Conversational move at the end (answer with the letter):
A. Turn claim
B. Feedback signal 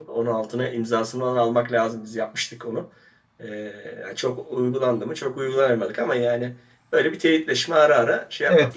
A